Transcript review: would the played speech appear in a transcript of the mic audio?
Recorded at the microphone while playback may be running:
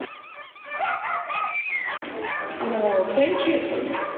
No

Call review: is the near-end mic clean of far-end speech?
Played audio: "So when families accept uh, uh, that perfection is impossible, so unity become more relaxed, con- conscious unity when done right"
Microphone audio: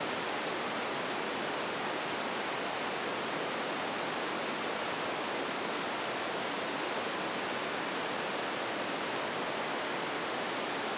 Yes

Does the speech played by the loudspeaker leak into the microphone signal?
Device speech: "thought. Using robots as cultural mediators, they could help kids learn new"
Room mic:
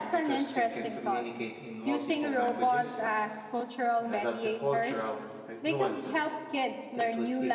Yes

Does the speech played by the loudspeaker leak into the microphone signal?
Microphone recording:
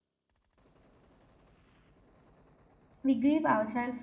No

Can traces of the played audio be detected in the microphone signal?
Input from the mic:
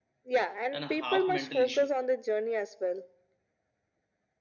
Yes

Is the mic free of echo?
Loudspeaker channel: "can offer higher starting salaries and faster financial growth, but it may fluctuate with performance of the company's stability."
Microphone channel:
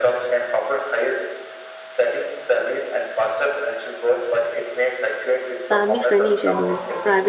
No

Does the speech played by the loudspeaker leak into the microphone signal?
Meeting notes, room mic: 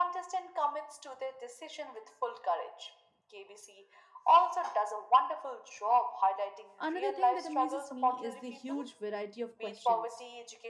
Yes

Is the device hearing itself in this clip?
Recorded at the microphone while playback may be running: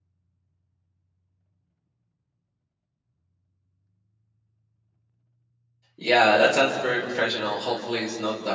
No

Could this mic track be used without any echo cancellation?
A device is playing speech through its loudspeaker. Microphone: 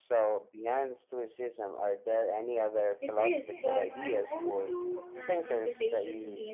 No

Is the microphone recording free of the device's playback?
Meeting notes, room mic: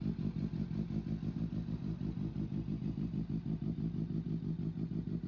Yes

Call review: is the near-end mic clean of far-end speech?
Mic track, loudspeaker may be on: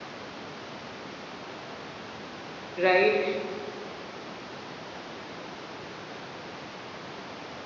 Yes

